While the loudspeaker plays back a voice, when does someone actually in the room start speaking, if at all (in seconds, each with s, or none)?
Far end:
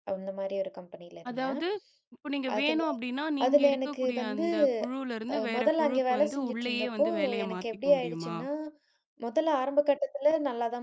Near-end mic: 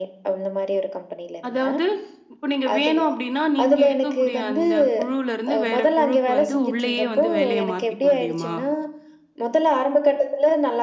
none